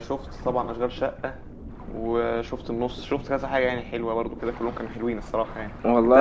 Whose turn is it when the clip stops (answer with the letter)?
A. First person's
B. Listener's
A